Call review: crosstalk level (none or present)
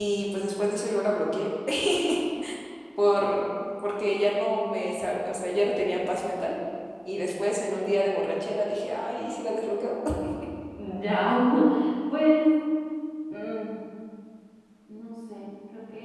none